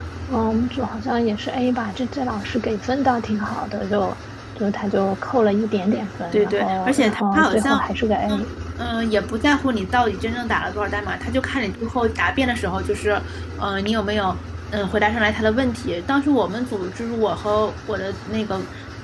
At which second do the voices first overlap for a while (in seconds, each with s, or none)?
6.3 s